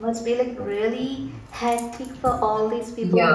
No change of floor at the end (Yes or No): Yes